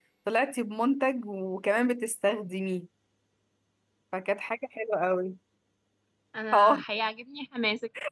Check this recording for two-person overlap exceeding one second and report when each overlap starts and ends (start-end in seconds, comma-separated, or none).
none